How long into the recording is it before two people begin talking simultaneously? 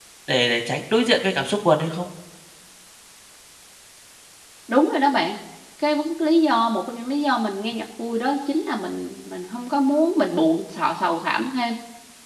none

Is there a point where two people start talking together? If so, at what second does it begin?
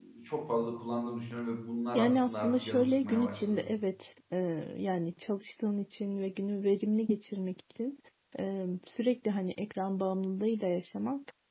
2 s

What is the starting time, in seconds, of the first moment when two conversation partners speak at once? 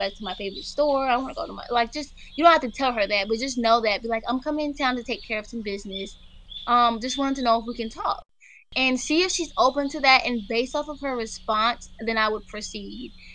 none

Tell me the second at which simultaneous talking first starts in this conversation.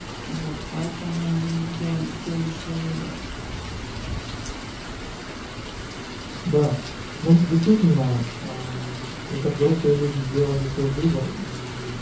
none

